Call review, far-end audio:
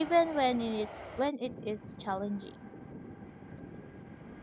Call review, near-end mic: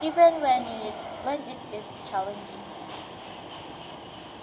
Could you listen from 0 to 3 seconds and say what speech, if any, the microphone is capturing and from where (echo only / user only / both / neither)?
echo only